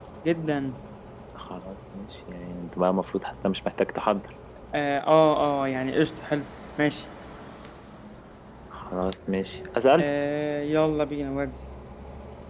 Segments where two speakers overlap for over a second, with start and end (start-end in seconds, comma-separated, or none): none